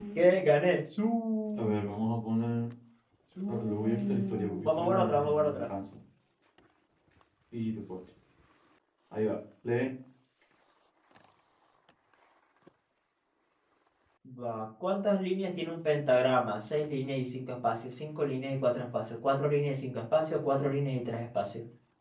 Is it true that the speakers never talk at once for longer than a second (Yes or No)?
No